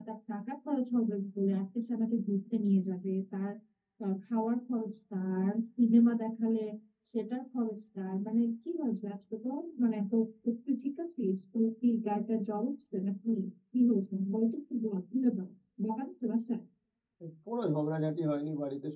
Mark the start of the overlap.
none

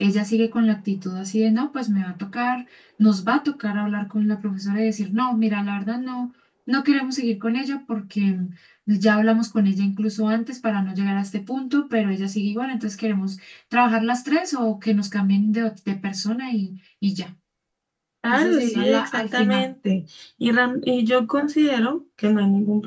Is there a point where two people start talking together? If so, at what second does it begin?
18 s

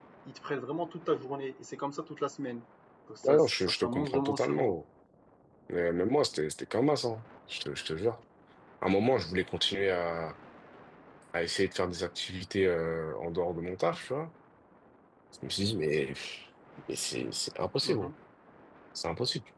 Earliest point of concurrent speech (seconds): 3 s

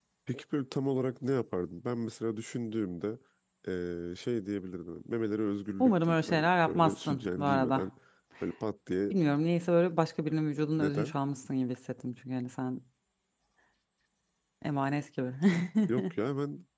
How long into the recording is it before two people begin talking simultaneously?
6 s

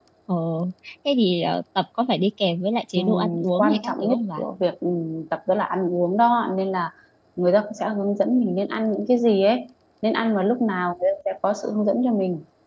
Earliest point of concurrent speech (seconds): 3 s

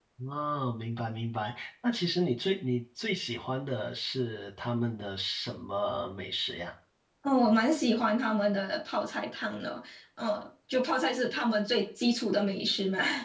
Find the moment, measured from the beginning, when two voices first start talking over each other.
none

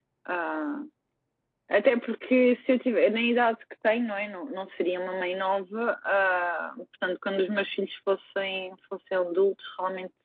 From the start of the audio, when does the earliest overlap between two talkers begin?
none

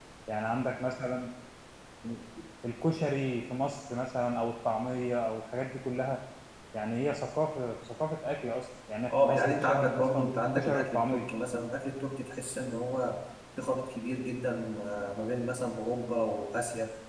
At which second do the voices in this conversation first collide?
9 s

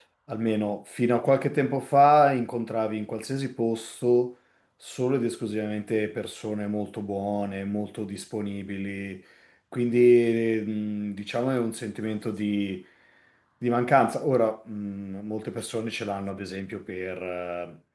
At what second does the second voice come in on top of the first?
none

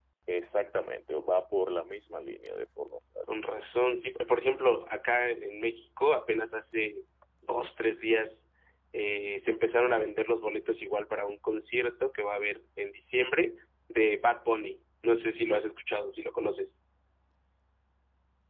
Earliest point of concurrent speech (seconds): none

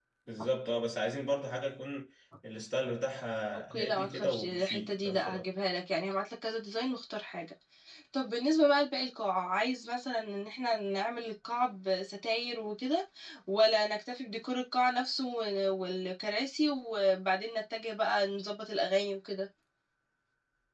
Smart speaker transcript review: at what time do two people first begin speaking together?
4 s

